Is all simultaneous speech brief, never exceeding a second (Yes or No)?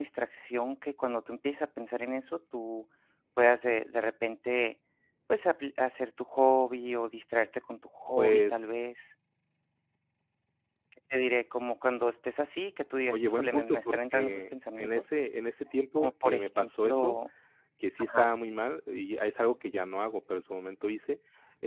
No